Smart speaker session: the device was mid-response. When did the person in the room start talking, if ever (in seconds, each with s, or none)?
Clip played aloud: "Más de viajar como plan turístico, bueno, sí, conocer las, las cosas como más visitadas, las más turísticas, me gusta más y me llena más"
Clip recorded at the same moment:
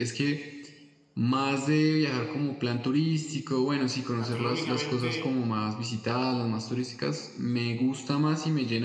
4.2 s